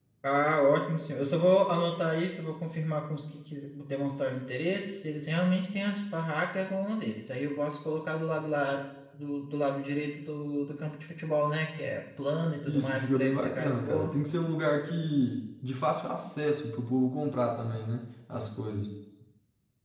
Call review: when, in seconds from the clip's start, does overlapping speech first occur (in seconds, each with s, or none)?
12.7 s